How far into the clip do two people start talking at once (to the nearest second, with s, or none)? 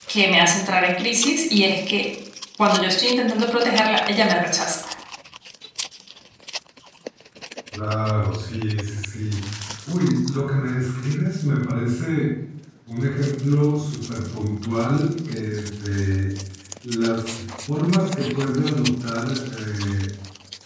none